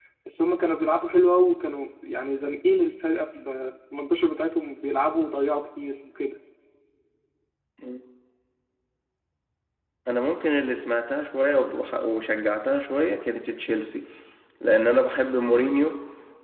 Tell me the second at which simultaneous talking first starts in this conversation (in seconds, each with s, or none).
none